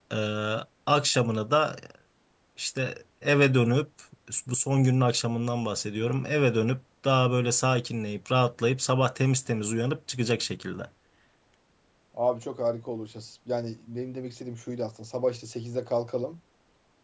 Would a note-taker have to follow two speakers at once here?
No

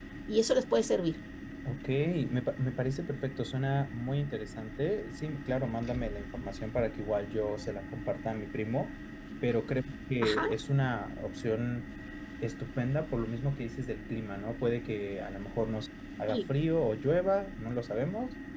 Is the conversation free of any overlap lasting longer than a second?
Yes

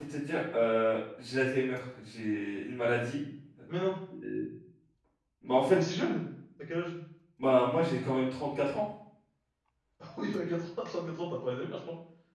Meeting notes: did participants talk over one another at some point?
No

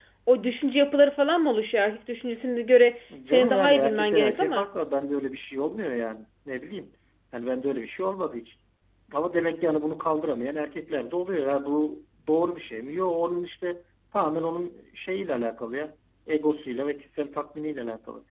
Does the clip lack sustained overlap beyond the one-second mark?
No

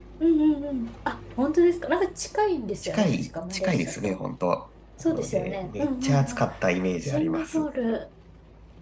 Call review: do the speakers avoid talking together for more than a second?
No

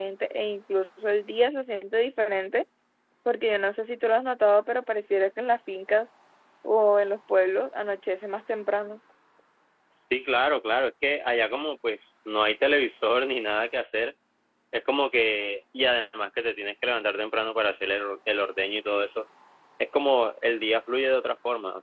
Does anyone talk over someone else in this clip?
No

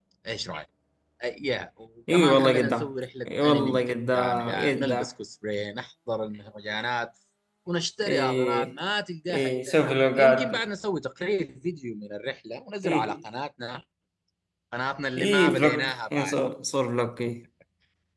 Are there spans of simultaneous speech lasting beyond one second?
Yes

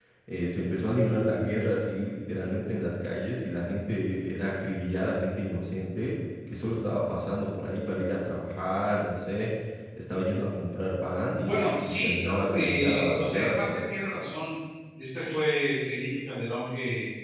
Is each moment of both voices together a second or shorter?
No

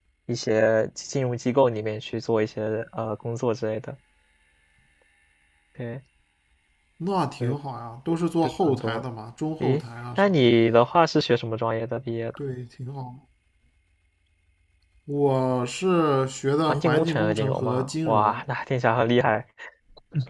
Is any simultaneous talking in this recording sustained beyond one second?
Yes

